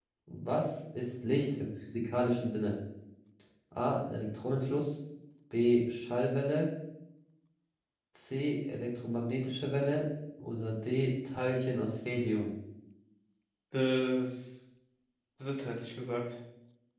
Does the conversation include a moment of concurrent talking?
No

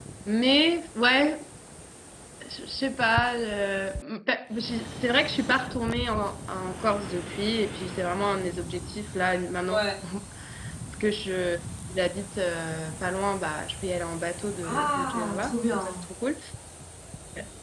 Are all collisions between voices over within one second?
No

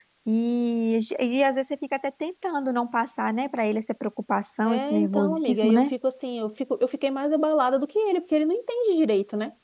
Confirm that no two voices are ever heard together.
No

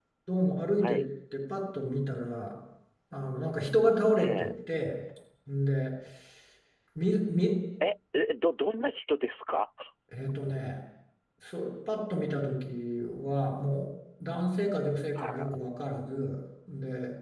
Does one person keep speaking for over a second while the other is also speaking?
No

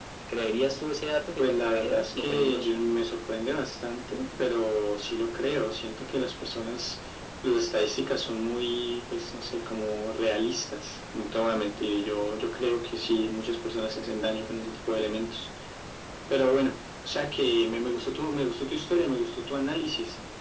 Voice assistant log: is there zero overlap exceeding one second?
No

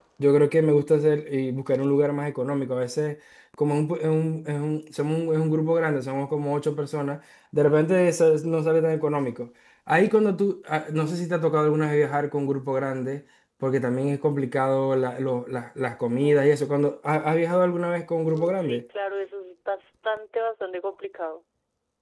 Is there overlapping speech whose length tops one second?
No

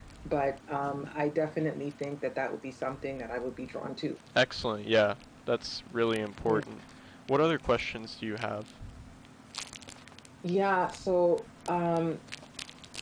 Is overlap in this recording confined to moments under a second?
Yes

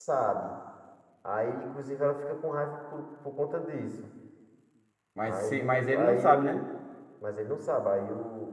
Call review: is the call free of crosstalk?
No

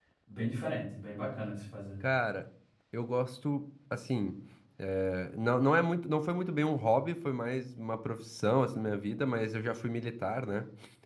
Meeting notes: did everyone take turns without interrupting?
Yes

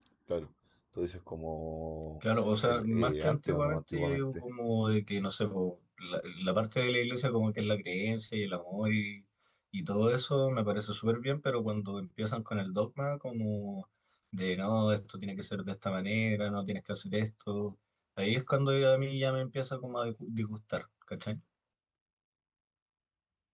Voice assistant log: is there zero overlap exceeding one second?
No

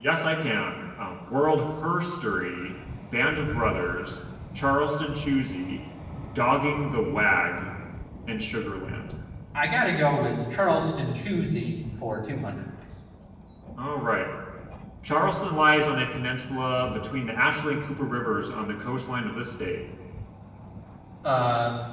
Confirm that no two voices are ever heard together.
Yes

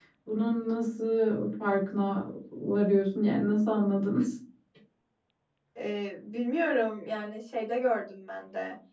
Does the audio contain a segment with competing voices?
No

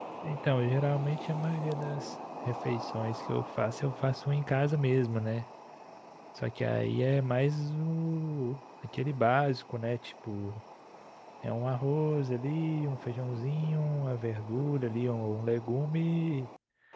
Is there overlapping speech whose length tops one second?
No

